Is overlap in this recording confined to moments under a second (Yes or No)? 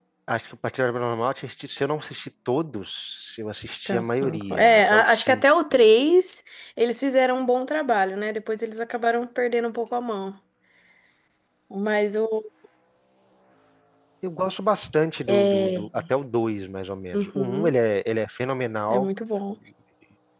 No